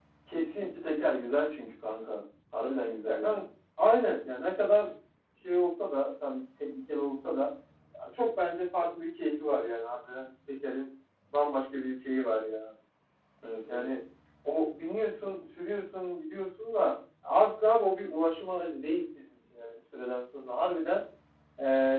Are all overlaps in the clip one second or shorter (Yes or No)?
Yes